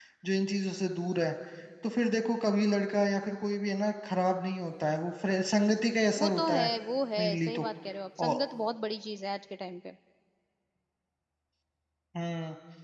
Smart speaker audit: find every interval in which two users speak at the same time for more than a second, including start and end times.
none

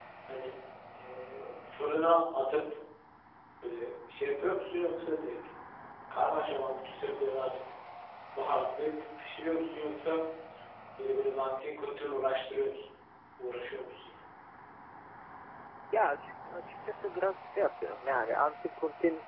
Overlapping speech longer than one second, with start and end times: none

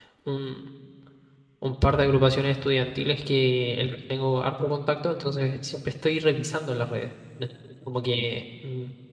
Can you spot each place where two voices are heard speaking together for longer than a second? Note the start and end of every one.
none

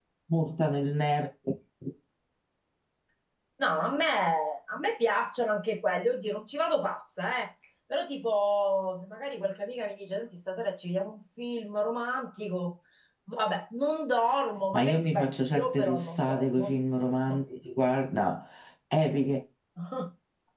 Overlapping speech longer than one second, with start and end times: 14.7-16.7

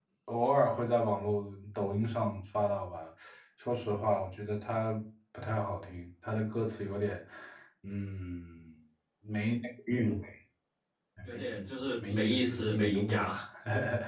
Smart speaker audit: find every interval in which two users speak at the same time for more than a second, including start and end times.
12.1-13.3

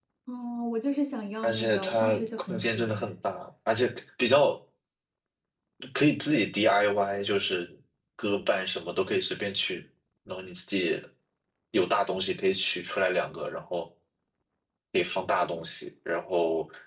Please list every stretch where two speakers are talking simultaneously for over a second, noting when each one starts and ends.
1.4-3.1

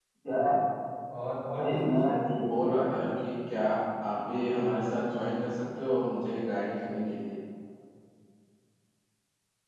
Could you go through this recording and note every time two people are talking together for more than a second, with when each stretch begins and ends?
1.6-3.1

